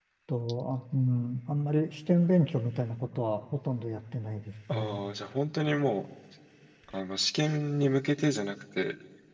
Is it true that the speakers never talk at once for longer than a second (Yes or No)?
Yes